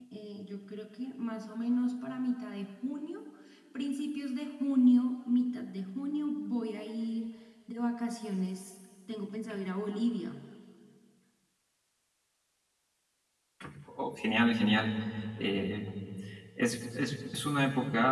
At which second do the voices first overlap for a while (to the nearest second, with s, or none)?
none